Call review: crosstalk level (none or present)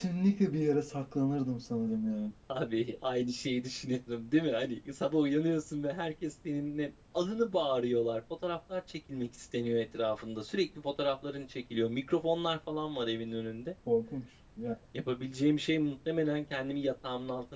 none